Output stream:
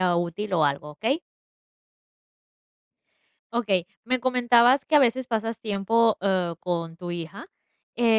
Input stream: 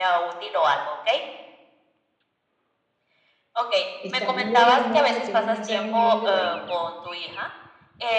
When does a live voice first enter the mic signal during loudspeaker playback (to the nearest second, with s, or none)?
4 s